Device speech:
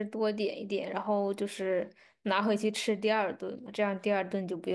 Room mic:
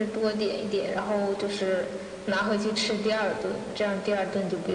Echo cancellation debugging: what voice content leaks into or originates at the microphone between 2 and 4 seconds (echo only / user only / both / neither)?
echo only